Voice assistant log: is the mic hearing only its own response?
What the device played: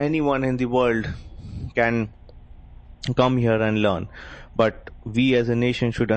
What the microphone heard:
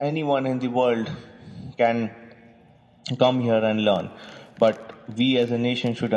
Yes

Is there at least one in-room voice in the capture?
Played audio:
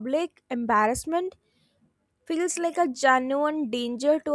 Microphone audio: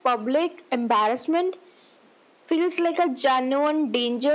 No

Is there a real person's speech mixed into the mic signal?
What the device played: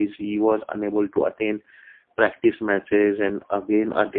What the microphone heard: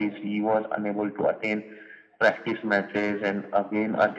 No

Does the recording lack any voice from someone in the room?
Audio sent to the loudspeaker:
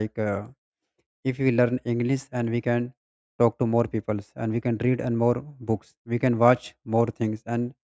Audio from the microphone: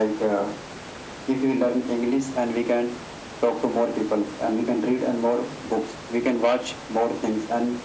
Yes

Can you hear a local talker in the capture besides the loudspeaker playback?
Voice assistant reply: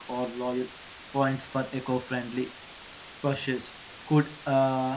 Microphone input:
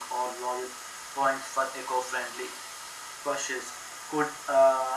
No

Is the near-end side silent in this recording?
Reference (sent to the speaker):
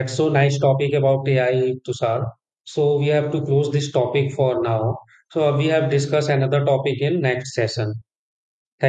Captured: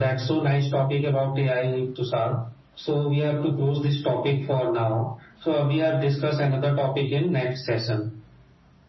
Yes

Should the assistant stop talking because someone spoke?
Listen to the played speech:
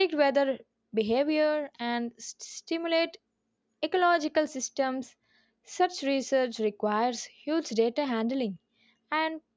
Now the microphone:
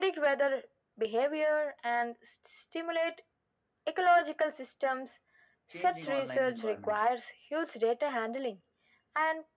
Yes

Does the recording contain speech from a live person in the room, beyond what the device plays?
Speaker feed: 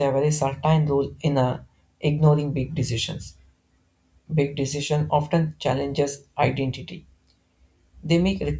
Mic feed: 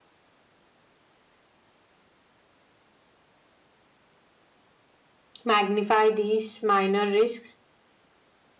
Yes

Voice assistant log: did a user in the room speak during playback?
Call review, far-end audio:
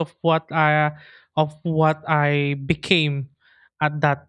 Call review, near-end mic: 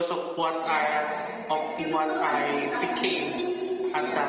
Yes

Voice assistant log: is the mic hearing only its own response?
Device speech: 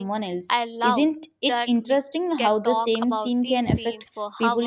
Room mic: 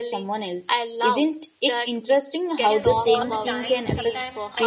No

